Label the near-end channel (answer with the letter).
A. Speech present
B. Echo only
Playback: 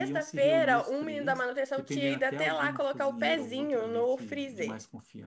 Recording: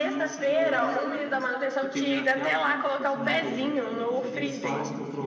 A